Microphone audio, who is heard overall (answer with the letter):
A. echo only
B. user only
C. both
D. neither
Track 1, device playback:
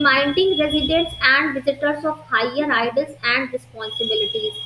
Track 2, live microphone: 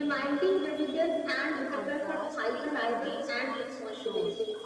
C